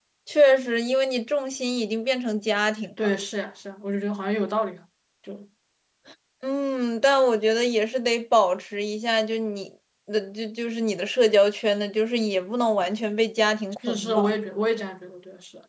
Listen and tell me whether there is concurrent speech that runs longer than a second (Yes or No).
No